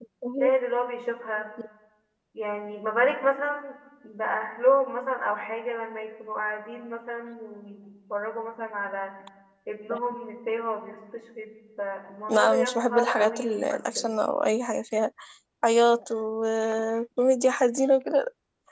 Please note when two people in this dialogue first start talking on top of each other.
12.3 s

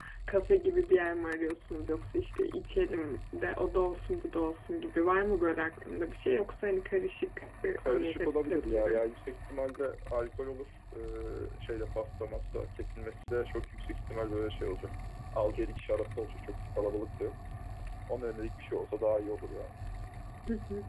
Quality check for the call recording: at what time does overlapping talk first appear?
7.8 s

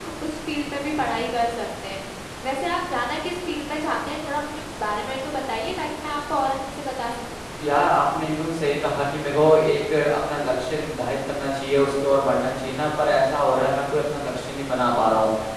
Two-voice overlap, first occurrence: none

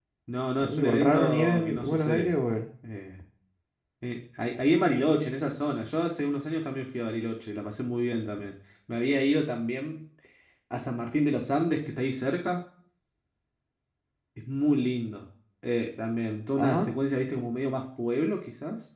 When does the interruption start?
0.6 s

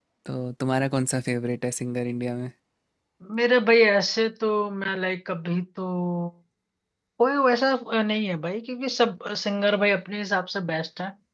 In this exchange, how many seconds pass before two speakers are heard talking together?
none

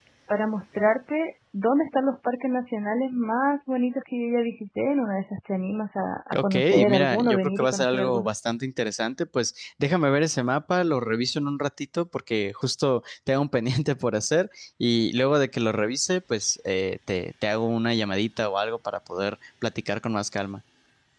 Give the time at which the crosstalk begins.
6.3 s

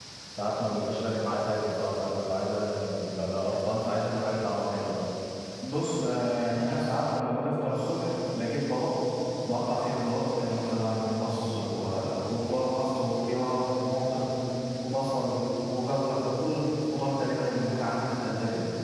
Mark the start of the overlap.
none

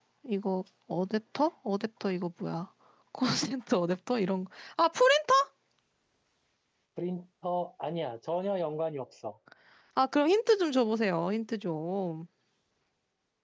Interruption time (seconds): none

